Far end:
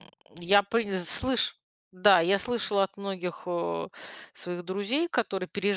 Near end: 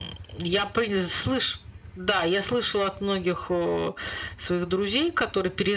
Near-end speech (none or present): none